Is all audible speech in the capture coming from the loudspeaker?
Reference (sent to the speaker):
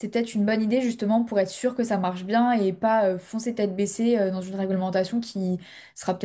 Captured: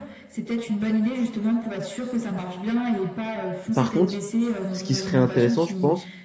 No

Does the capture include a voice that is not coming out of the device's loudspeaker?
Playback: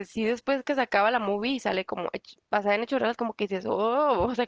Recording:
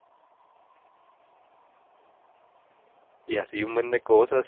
Yes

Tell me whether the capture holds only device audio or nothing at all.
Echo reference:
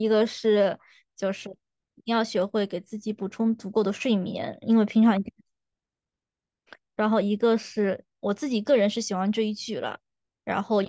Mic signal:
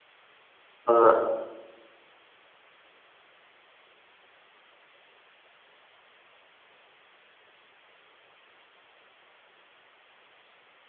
No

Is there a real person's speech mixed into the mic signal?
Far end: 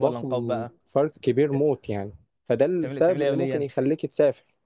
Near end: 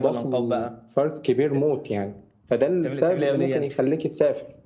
No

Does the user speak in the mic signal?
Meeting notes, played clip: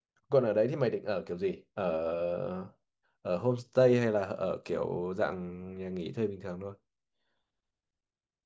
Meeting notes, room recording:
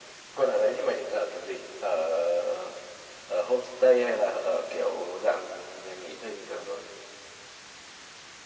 No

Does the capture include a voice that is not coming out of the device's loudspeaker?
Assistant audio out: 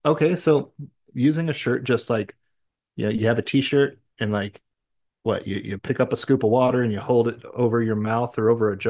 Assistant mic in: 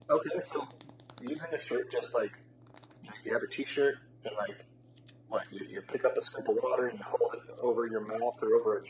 No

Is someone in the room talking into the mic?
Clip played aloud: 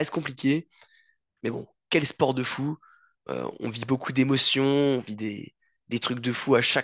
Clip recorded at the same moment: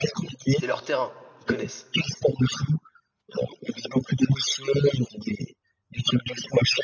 Yes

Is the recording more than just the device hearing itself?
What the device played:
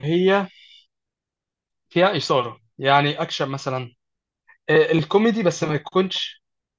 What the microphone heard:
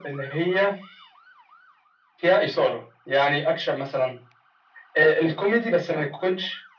No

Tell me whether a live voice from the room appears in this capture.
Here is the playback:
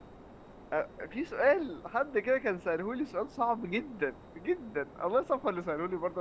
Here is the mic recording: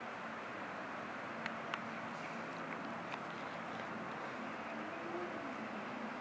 No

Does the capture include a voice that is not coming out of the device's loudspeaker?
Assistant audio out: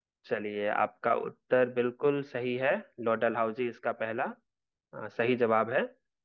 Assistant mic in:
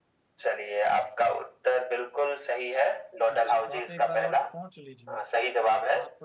Yes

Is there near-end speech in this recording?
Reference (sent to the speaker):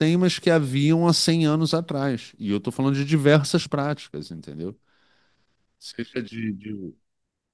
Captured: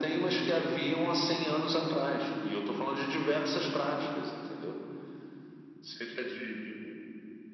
No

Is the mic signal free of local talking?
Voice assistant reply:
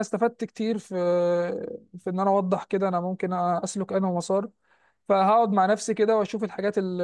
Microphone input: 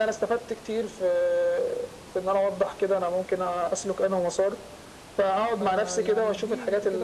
No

